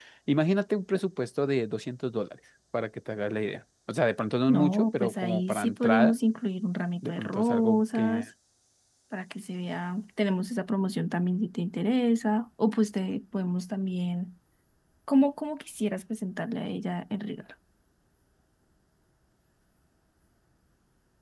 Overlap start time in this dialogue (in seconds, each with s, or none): 4.5 s